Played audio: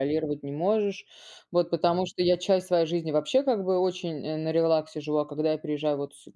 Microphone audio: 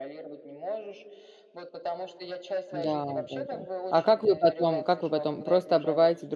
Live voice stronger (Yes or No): Yes